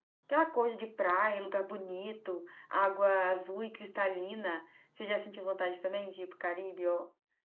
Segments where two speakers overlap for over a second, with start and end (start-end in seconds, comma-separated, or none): none